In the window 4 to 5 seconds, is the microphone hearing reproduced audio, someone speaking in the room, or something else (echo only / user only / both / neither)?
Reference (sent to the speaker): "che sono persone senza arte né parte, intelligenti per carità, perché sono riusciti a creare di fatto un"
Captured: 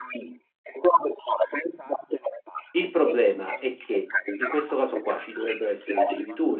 both